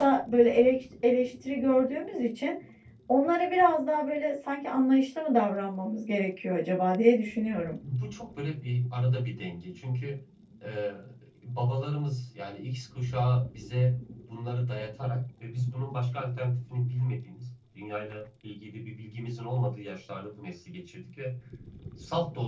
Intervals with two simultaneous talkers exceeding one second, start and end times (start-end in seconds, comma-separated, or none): none